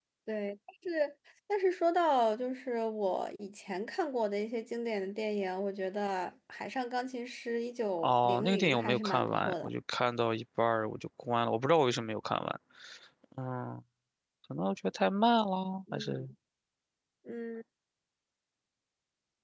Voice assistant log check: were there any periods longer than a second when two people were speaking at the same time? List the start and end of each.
8.0-9.7

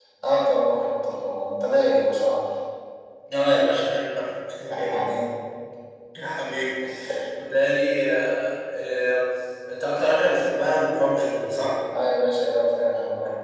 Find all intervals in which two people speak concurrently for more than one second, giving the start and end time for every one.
none

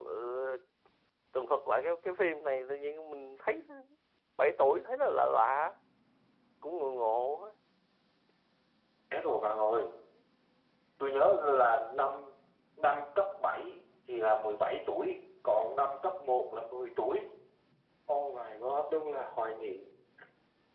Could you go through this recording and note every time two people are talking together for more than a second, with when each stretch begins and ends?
none

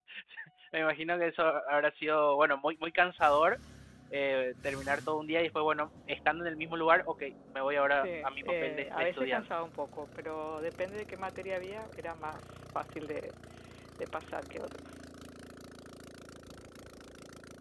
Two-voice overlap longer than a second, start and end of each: 7.9-9.4

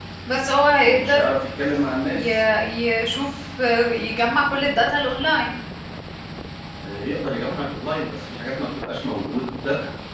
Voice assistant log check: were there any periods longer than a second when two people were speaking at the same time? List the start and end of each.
none

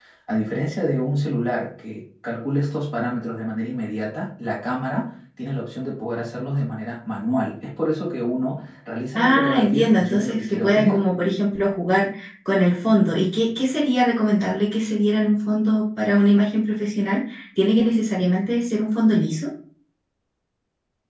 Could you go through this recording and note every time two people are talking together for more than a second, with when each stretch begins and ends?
9.2-11.0

